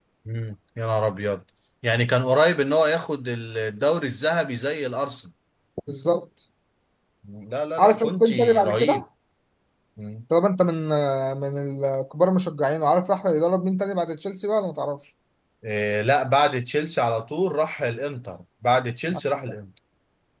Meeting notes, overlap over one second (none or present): present